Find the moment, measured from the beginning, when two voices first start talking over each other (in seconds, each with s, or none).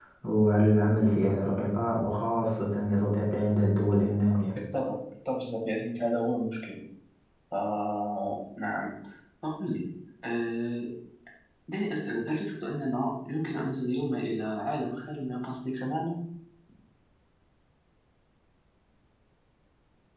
none